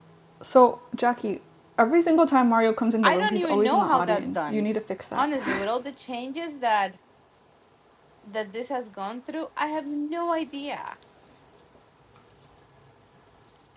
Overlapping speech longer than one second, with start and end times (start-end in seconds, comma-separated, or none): 3.0-4.7